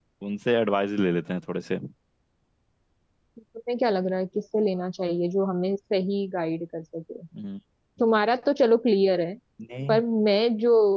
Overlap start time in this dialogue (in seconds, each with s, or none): none